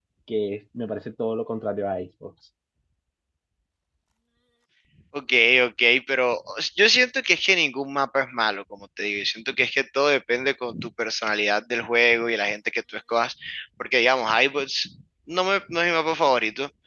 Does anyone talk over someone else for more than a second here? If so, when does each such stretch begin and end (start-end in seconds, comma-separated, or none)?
none